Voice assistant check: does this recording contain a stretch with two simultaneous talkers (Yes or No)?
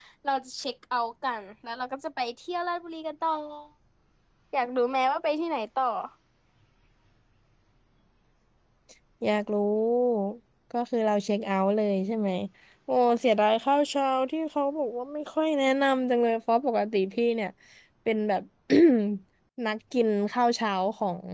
No